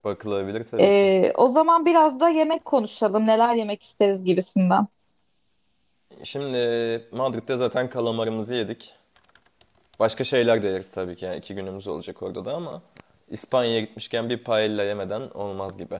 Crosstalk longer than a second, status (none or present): none